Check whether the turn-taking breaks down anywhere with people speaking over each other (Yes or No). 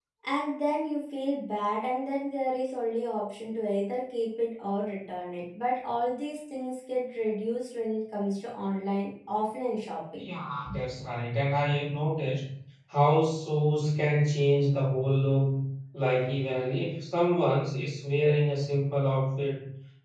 No